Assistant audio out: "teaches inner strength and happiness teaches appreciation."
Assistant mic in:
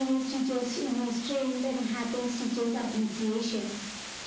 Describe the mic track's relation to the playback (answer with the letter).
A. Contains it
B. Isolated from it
A